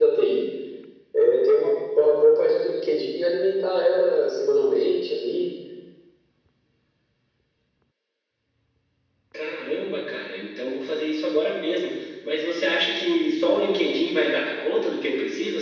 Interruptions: none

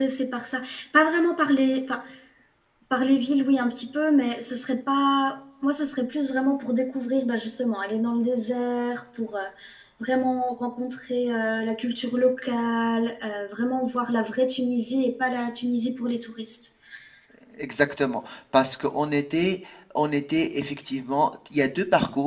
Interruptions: none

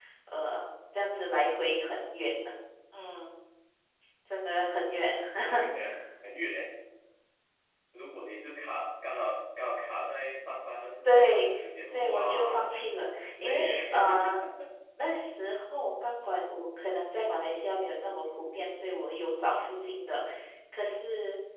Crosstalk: present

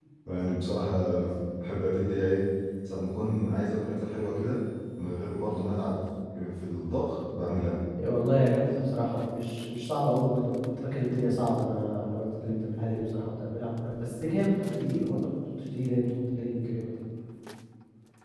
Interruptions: none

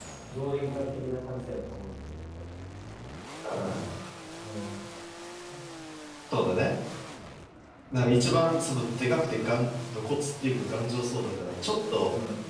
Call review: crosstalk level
none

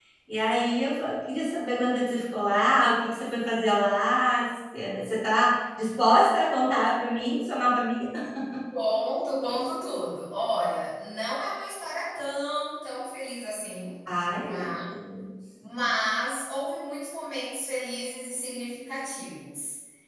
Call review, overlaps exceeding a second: none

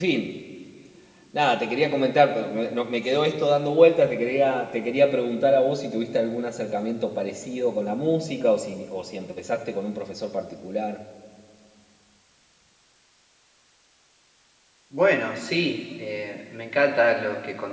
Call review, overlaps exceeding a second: none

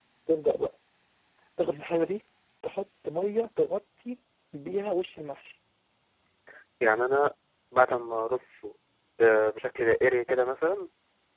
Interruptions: none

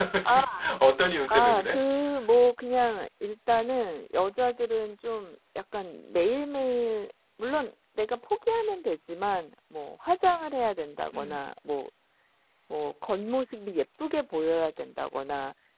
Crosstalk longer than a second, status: none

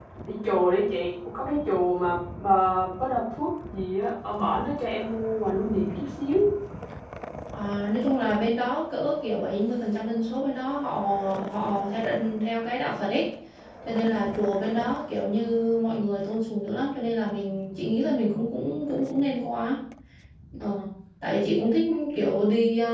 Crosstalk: none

